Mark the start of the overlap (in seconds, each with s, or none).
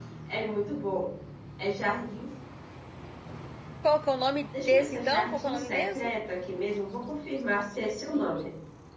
4.6 s